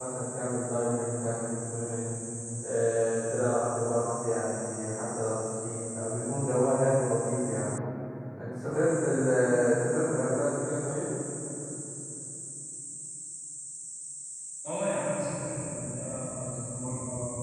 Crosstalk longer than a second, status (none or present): none